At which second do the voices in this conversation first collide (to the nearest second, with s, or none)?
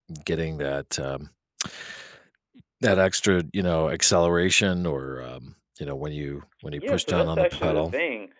7 s